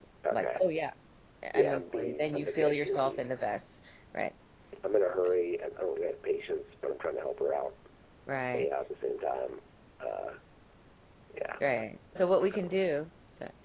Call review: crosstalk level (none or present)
present